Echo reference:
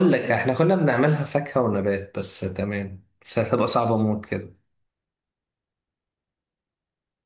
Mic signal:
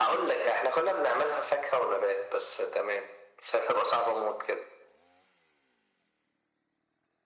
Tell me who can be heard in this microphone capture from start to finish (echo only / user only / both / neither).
echo only